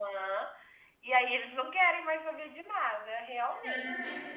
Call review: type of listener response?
taking over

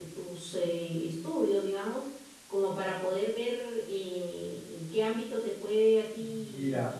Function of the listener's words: taking over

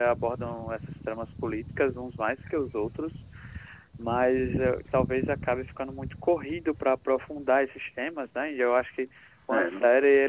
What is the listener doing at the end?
listening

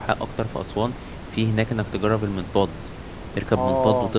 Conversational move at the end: listening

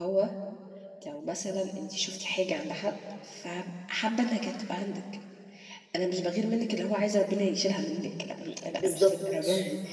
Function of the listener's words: listening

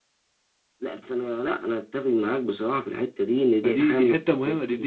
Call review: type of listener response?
taking over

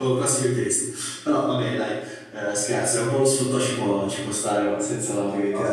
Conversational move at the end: taking over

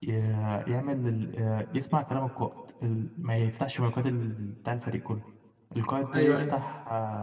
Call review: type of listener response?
listening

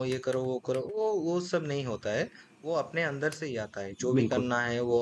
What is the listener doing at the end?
listening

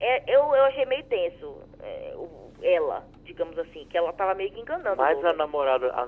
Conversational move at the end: taking over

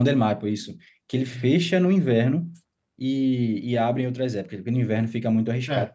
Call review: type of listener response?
taking over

